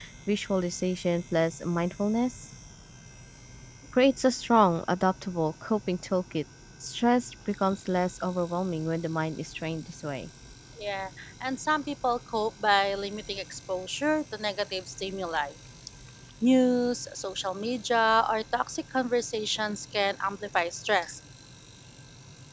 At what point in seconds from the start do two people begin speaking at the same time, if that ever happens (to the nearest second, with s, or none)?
none